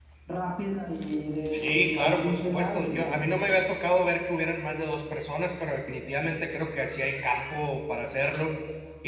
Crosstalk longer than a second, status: present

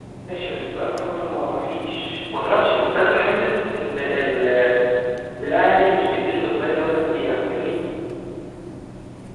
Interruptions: none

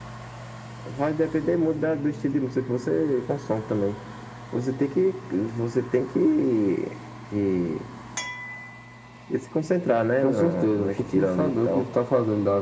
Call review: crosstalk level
present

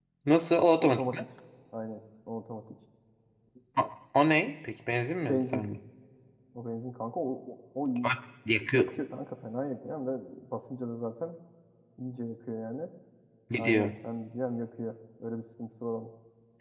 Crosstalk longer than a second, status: none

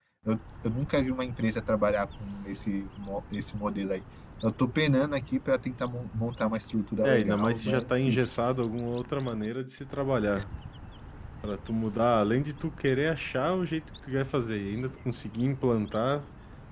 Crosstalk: present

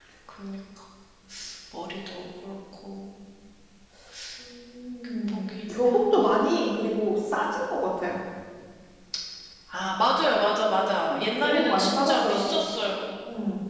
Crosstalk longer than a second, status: present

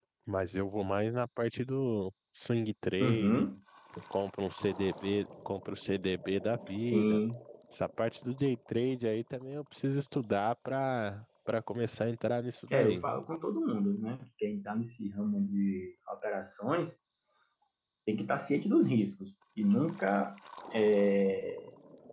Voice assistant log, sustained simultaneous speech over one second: none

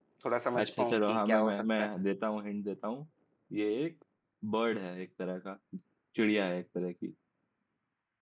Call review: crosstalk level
present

